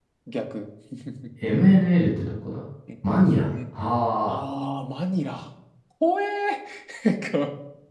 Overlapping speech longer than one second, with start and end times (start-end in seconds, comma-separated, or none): none